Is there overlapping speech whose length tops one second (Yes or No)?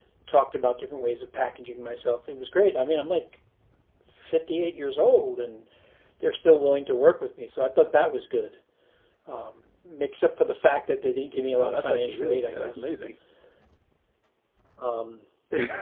Yes